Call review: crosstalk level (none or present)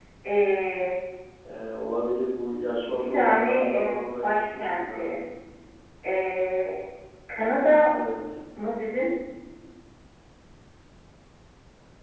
present